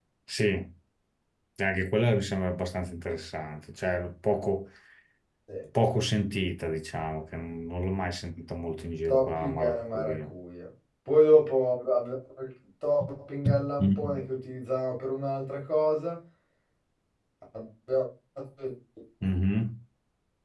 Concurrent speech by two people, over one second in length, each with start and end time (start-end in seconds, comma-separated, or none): 9.1-10.3